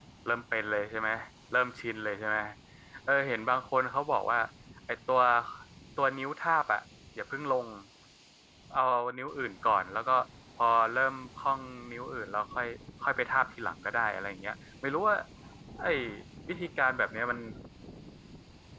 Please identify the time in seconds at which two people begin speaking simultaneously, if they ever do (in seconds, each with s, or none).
none